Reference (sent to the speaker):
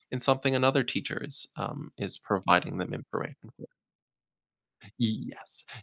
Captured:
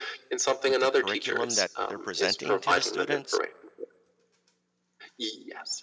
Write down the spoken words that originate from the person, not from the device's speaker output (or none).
with the curriculum that they're presenting to the students